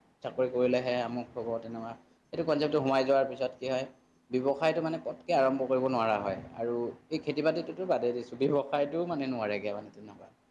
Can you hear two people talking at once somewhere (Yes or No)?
No